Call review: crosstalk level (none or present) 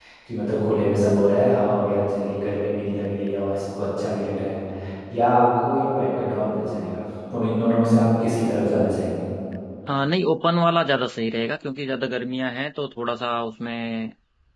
none